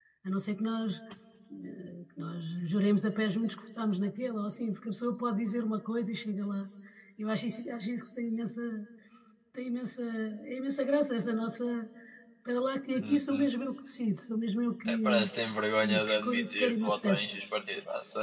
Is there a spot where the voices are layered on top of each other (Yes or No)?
Yes